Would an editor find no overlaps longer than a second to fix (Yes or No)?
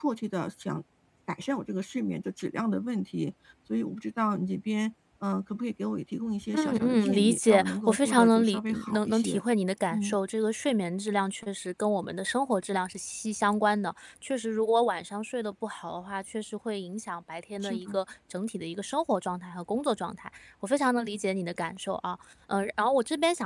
No